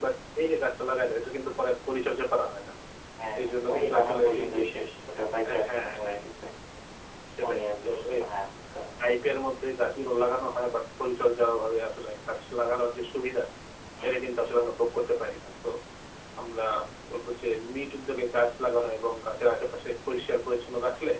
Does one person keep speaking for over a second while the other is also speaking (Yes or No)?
Yes